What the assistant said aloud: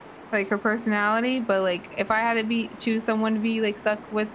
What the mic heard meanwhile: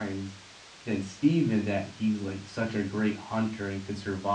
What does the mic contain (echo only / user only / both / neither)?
user only